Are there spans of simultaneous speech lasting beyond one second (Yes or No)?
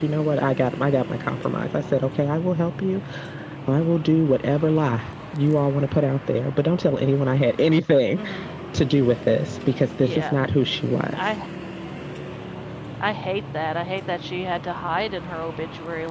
No